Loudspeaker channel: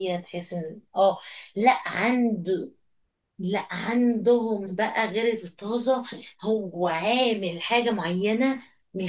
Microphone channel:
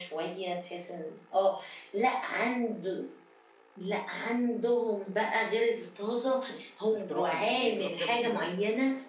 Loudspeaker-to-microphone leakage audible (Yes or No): Yes